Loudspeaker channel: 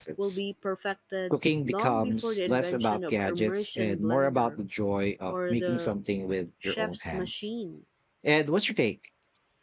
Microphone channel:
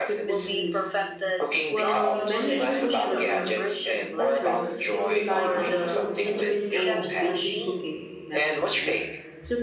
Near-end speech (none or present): present